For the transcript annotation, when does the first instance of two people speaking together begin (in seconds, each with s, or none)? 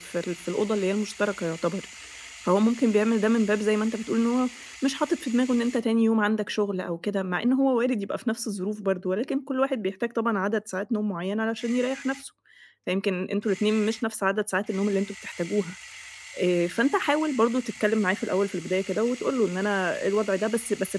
none